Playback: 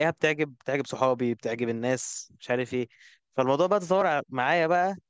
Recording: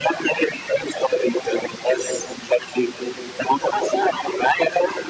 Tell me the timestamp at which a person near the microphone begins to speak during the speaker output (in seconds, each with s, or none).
none